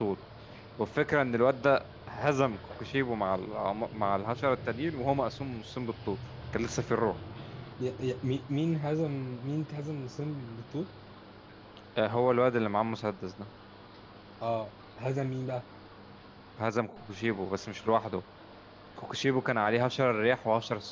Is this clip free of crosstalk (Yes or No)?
Yes